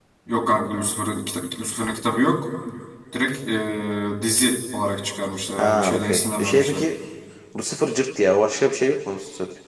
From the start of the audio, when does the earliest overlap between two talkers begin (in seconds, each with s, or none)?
5.6 s